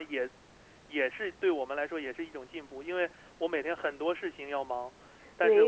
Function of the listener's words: listening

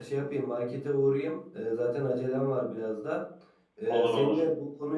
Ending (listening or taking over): listening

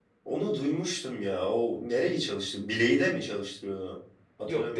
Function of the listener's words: taking over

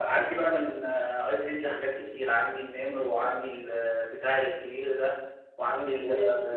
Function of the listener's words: taking over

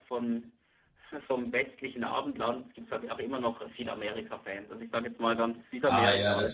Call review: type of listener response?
taking over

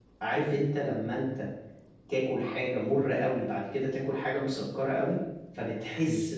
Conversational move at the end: listening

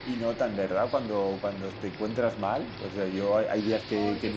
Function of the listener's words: listening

